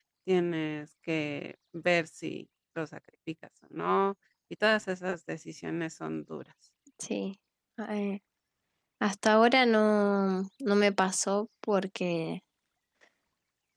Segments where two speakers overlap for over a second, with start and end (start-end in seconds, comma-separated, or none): none